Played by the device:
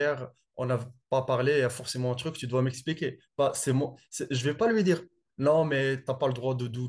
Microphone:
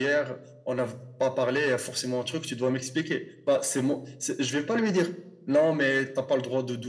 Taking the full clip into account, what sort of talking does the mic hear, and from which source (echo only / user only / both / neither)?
echo only